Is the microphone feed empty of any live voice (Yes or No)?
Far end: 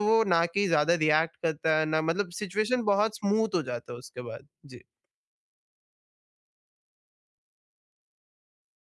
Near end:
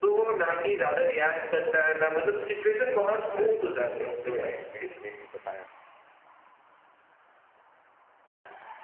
No